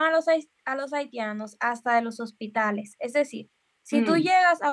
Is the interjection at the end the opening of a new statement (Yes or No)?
No